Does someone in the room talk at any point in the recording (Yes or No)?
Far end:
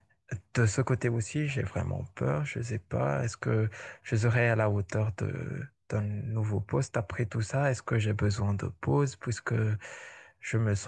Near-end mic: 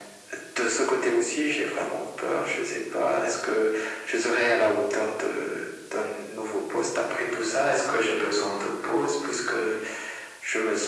No